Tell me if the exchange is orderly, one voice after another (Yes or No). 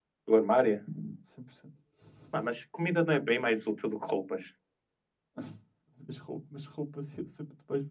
Yes